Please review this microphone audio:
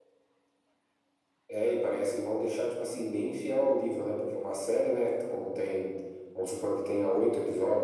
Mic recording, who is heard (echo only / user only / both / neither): echo only